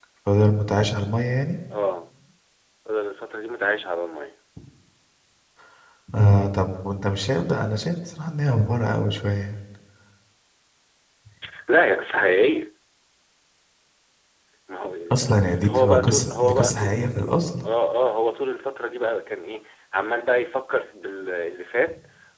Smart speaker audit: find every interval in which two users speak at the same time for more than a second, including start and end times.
15.7-16.9

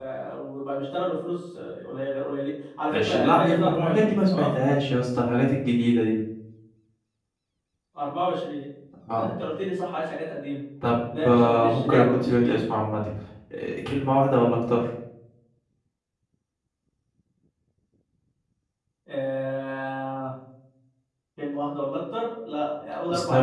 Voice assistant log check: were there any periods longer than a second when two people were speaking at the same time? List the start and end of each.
2.9-4.6, 11.2-12.6

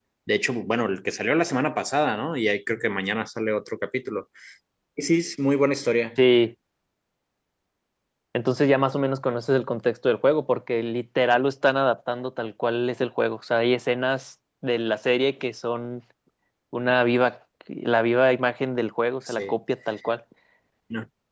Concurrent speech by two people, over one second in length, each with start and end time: none

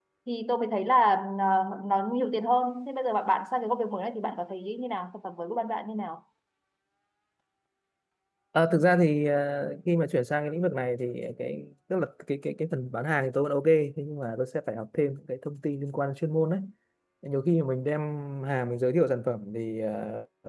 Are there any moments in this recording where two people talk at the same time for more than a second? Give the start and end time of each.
none

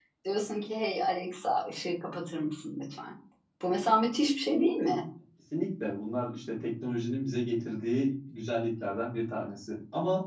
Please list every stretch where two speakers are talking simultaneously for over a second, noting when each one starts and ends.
none

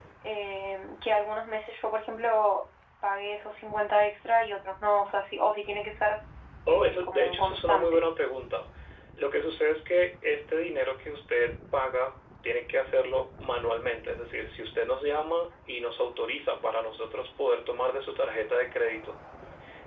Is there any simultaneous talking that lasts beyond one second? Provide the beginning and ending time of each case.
6.7-8.0

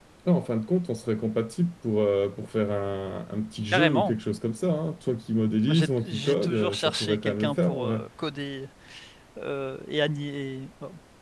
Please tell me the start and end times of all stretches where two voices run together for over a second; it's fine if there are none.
5.6-8.0

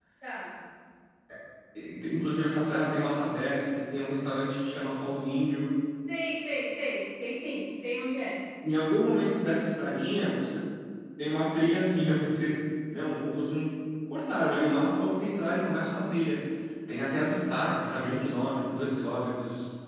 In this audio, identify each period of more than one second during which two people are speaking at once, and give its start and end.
none

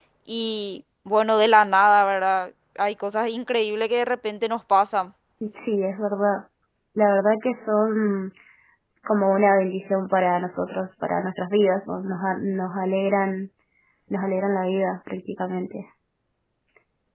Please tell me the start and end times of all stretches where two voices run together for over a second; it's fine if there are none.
none

